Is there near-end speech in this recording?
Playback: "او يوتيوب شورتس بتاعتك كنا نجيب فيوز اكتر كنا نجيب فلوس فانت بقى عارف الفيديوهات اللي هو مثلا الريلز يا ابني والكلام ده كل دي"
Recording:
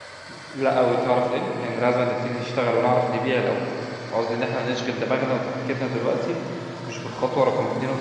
Yes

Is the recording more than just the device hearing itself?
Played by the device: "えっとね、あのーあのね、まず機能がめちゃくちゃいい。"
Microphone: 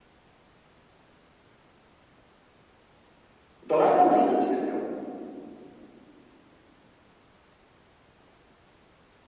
Yes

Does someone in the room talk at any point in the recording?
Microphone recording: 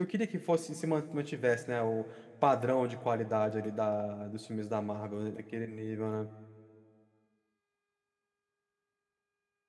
Yes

